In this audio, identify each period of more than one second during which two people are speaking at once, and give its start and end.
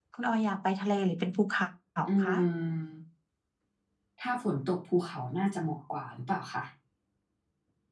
none

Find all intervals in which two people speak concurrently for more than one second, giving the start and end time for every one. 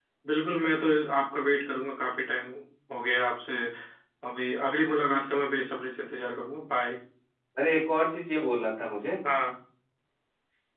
none

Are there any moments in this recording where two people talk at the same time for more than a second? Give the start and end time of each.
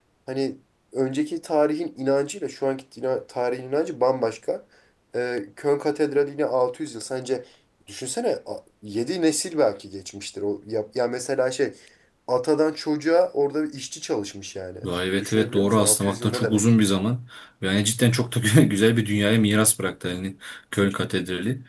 15.2-16.6

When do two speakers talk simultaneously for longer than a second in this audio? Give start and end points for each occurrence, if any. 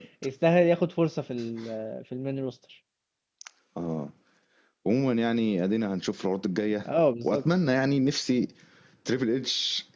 none

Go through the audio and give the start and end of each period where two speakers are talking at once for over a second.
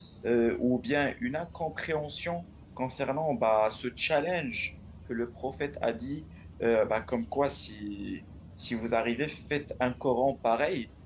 none

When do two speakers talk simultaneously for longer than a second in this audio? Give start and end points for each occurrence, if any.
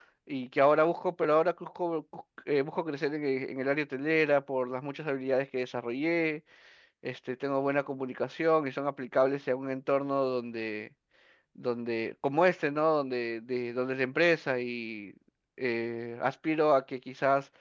none

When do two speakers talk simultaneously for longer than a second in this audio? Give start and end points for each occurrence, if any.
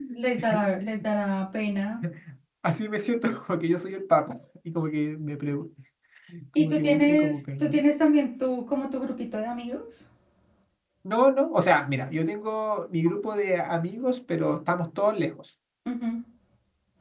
6.6-7.8

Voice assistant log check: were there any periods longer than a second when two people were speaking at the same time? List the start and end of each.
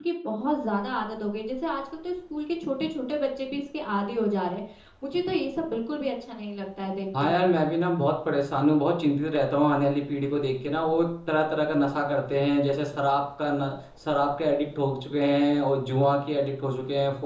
none

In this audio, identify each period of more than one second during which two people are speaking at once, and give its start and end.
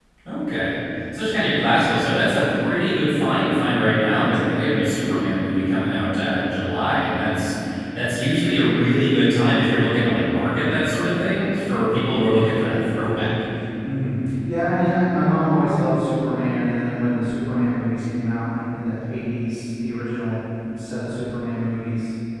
none

